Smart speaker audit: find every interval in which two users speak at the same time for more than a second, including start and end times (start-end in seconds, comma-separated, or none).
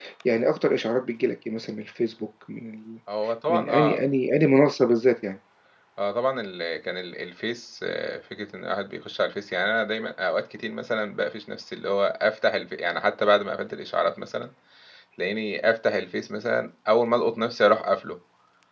none